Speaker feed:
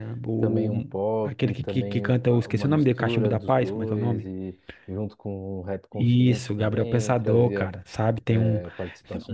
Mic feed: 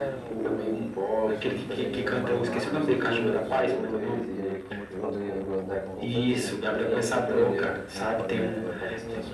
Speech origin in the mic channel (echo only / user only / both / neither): both